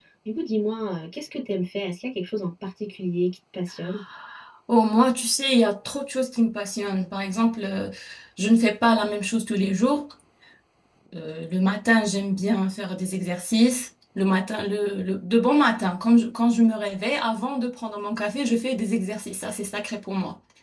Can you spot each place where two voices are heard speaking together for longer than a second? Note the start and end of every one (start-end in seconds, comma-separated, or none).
none